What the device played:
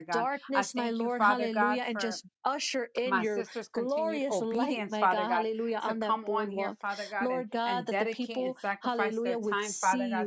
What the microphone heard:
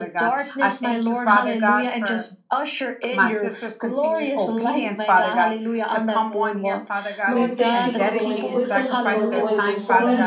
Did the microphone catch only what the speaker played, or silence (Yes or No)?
No